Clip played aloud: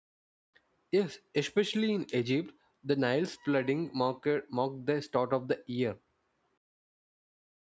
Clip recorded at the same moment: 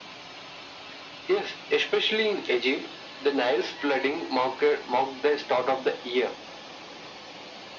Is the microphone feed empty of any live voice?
Yes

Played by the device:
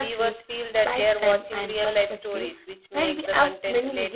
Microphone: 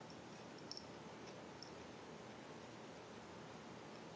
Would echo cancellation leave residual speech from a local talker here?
No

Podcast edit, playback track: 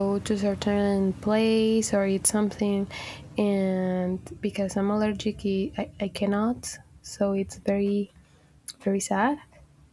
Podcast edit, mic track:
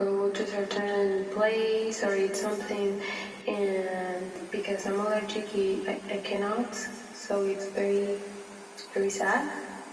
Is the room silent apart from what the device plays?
Yes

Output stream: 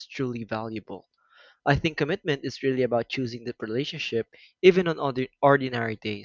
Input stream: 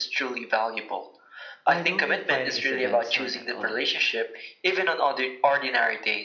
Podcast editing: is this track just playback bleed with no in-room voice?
No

